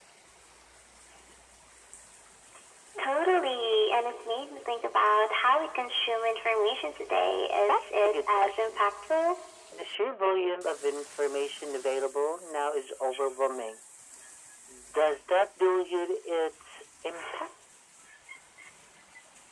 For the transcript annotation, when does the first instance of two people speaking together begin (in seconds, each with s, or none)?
7.7 s